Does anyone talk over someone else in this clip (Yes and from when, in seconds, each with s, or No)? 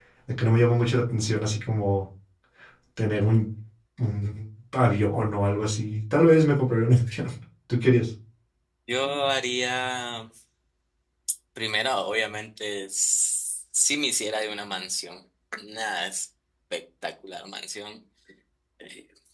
No